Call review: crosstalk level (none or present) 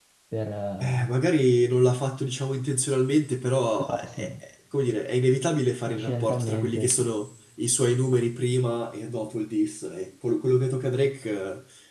present